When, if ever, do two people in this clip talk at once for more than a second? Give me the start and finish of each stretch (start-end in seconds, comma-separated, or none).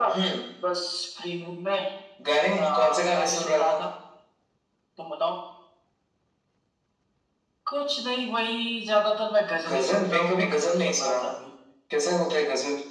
2.6-3.8, 9.7-11.2